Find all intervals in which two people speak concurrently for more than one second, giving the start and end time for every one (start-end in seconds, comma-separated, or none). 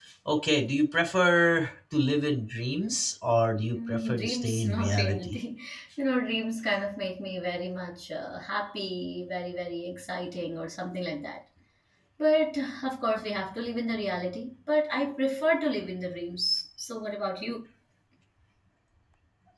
3.7-5.4